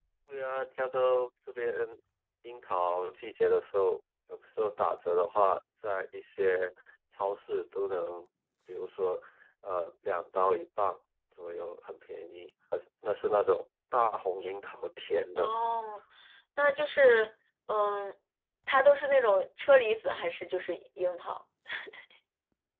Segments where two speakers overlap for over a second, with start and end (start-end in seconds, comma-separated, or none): none